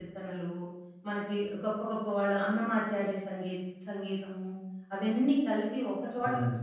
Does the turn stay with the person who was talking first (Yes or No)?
Yes